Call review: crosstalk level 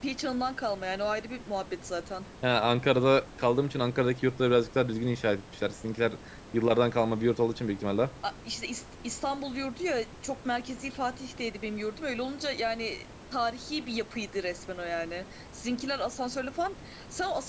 none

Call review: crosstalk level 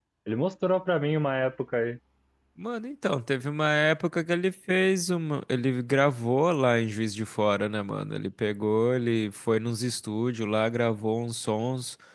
none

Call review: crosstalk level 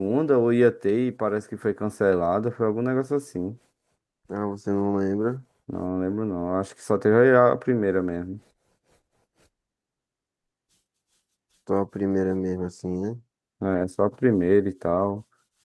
none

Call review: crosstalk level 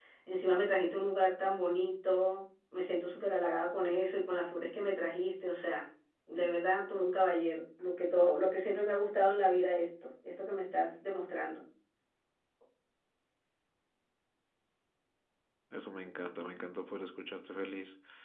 none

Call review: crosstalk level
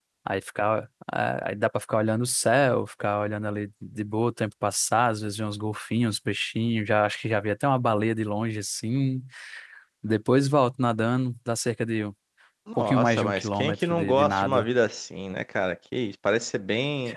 present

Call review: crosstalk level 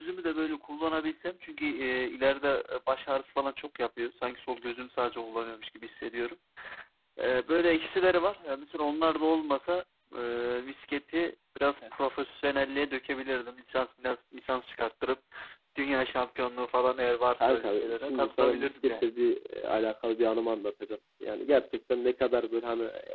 present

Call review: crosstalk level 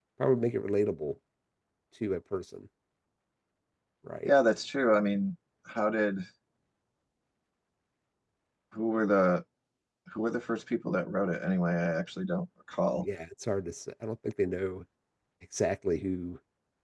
none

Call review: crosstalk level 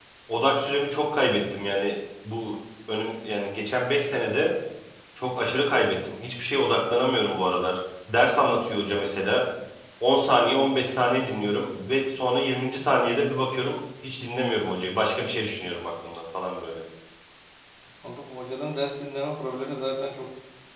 none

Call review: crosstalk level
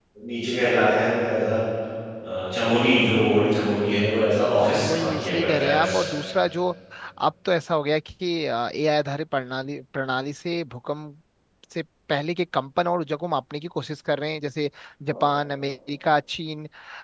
present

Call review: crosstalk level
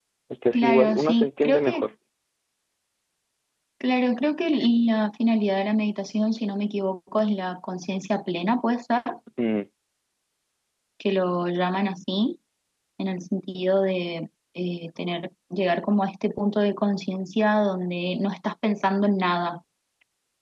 present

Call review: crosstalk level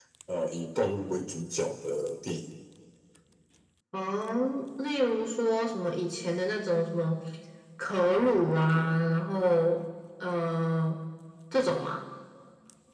none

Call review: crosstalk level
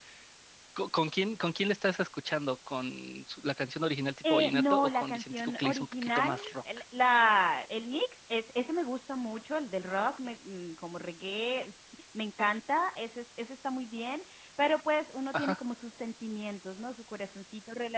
present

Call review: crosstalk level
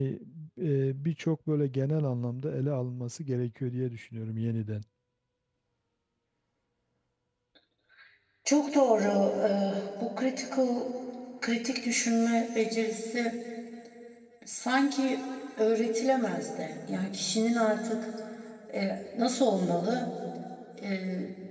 none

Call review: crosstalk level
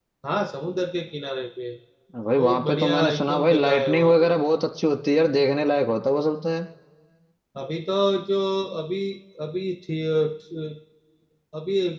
present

